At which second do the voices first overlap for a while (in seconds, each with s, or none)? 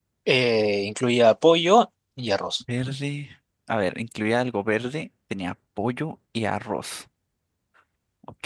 none